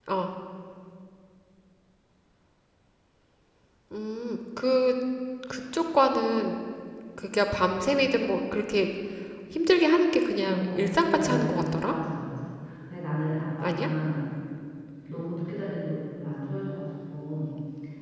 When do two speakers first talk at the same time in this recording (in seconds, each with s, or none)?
10.4 s